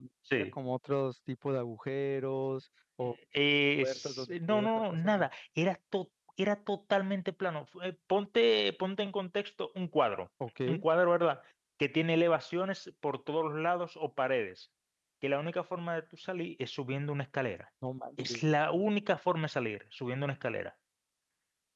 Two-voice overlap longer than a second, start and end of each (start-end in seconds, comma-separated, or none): 3.8-5.3